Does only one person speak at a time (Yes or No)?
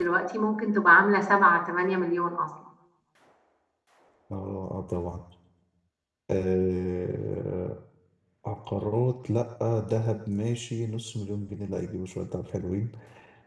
Yes